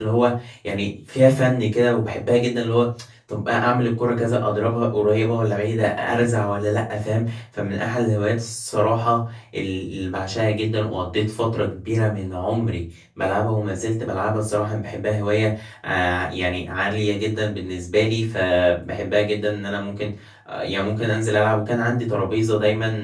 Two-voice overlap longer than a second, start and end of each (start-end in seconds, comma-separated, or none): none